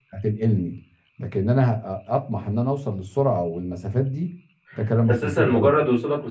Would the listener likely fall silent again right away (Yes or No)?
No